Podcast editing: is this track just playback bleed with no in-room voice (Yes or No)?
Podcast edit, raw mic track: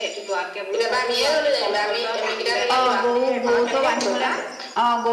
No